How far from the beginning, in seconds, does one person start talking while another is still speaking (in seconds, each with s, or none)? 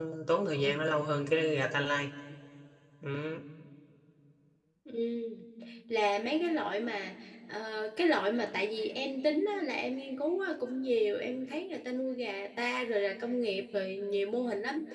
none